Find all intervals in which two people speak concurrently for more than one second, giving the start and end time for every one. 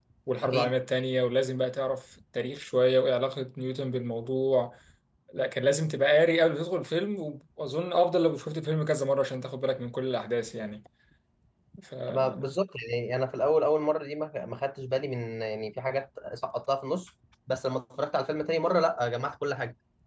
none

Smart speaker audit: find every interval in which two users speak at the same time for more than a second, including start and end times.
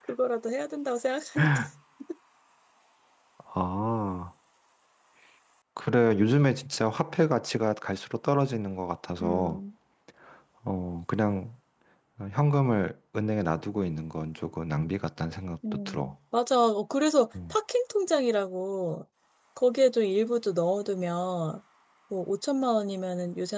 none

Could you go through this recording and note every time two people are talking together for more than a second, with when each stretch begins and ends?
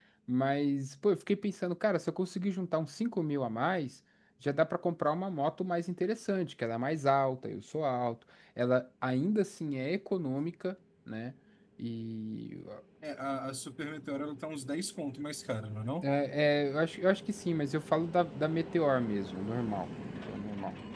none

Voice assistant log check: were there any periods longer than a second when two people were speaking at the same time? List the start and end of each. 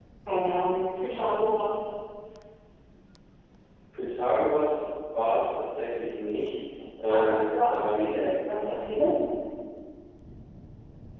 7.2-8.4

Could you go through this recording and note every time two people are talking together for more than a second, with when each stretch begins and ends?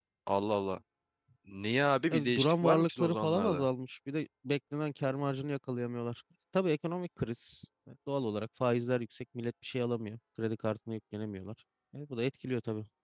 2.1-3.7

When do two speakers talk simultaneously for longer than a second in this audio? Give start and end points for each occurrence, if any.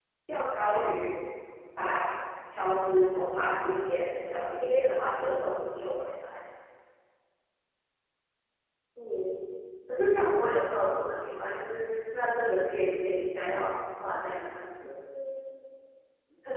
none

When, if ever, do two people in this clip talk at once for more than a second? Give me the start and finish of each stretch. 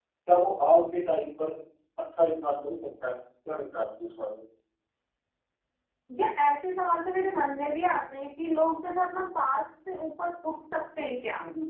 none

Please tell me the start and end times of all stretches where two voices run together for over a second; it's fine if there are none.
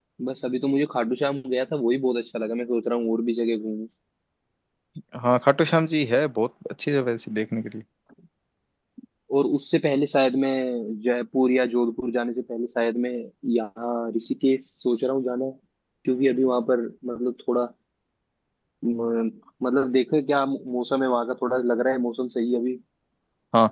none

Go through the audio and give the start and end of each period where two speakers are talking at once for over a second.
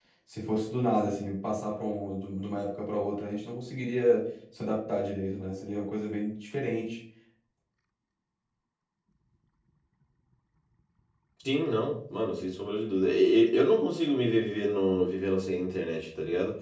none

